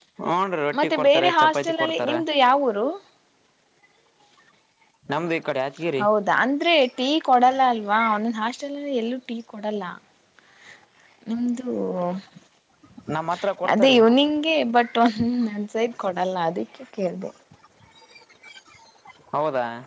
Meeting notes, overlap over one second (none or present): present